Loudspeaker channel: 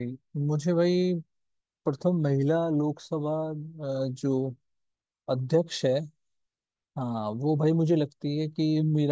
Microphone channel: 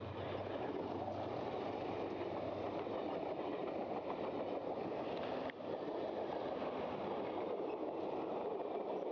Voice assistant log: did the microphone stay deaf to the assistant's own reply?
Yes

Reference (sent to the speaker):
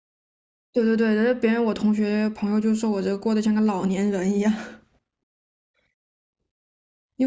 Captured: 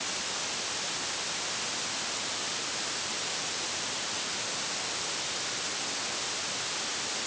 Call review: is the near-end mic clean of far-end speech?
Yes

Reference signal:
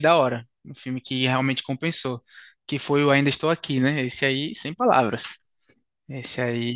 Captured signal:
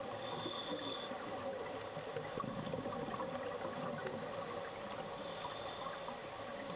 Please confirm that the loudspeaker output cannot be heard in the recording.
Yes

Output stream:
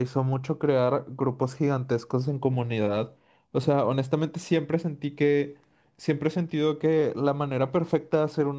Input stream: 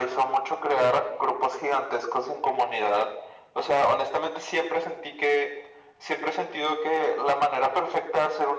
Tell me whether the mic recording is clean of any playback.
No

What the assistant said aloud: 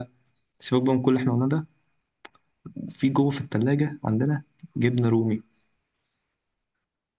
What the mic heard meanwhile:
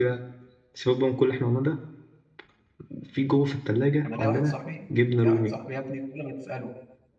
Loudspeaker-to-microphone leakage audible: Yes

